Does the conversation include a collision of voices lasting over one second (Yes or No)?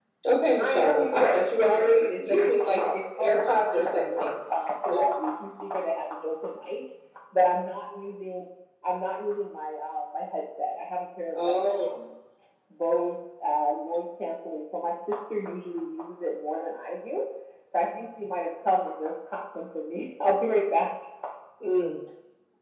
Yes